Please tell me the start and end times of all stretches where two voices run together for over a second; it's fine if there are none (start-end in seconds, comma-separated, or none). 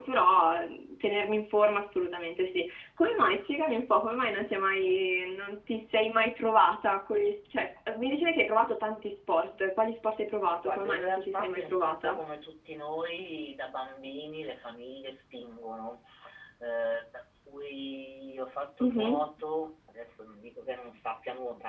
10.5-12.2